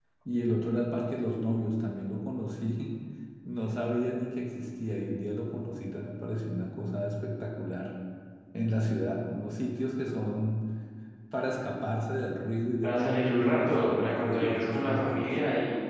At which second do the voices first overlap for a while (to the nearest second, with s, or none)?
13 s